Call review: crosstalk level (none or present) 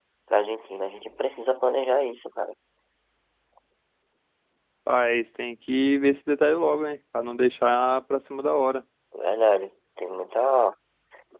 none